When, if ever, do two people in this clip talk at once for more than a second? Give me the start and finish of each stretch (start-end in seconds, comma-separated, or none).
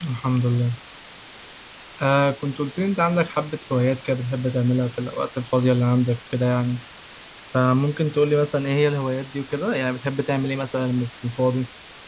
none